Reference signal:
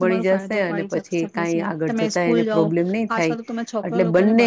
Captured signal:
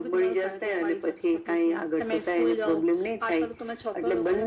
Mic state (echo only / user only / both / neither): echo only